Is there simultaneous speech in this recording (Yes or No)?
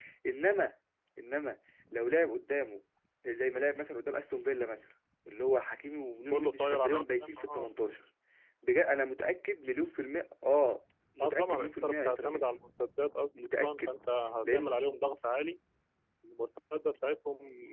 Yes